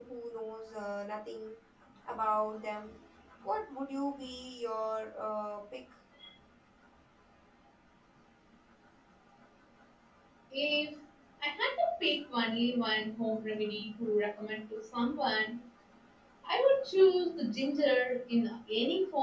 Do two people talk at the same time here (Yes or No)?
No